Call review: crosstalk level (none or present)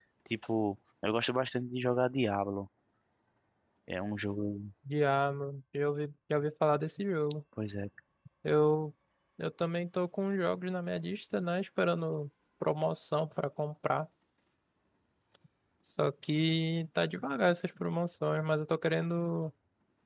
none